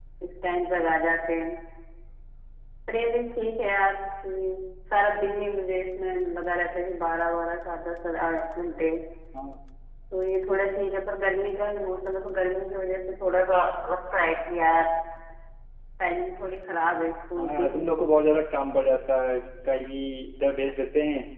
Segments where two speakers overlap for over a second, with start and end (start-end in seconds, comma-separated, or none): none